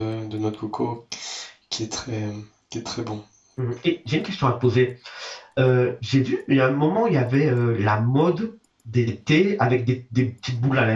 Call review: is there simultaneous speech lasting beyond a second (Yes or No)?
No